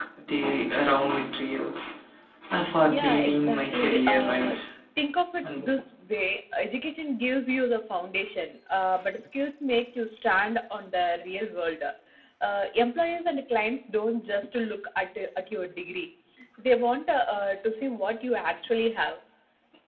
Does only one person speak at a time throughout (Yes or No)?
No